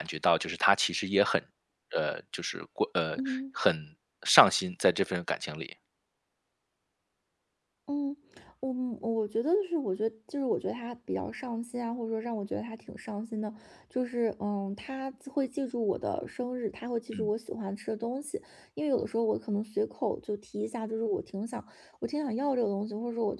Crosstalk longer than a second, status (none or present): none